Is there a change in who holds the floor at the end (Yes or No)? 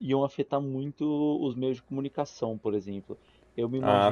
No